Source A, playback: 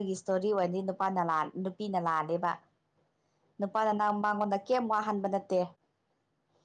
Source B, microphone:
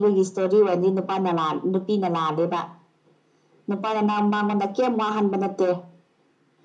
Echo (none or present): present